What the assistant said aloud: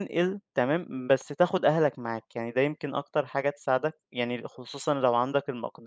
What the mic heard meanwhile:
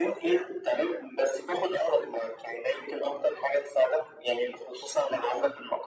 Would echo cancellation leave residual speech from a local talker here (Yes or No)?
No